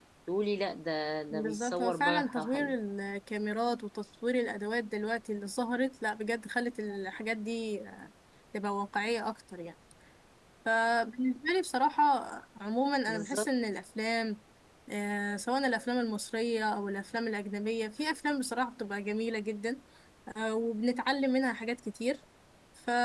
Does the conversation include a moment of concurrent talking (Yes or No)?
Yes